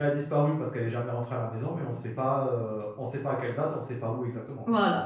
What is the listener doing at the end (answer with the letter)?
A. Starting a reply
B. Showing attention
A